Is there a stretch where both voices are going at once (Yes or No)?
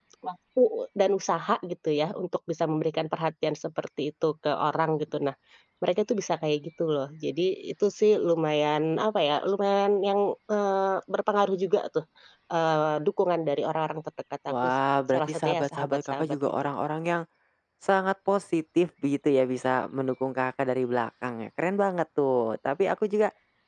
Yes